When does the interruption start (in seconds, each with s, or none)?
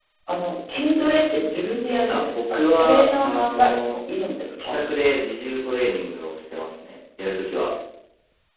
2.1 s